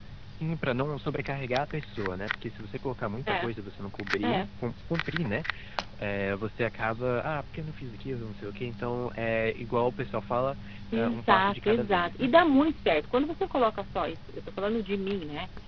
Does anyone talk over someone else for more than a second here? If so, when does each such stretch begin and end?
11.0-12.3

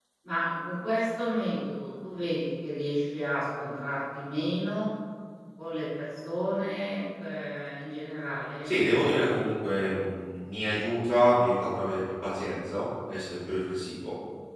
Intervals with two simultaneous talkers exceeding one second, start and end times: 8.6-10.0

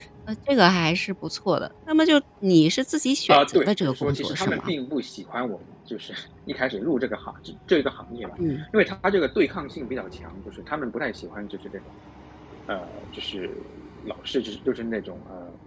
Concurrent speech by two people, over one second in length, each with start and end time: 3.3-4.7

